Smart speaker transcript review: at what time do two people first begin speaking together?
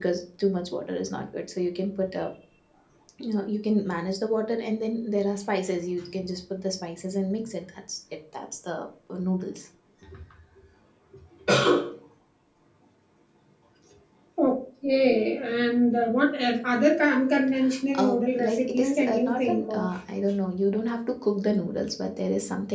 18 s

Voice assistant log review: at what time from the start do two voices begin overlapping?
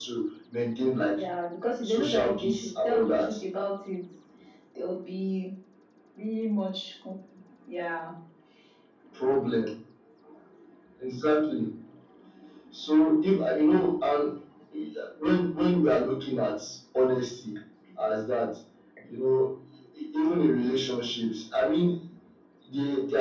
2 s

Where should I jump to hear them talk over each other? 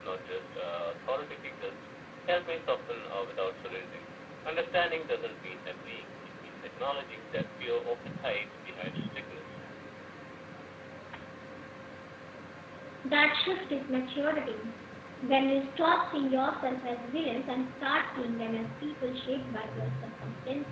none

